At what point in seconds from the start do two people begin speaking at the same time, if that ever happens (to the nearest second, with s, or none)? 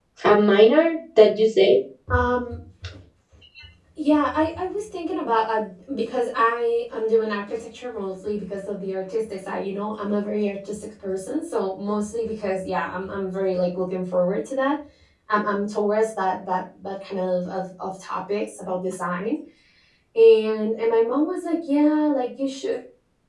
none